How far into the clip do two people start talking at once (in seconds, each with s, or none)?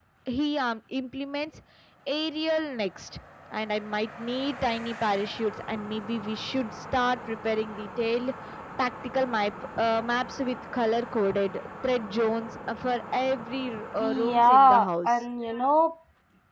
14.0 s